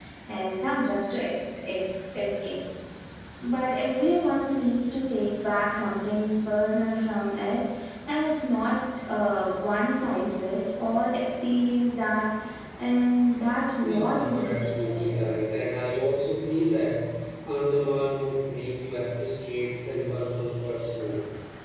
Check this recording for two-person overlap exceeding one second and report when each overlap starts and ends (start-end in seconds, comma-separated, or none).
13.8-15.3